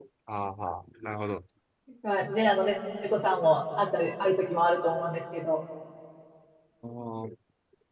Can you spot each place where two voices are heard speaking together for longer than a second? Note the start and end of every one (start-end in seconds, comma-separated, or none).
none